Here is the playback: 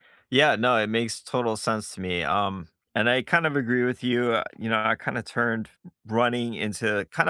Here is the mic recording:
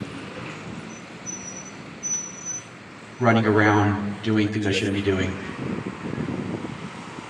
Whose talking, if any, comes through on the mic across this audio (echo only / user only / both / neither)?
user only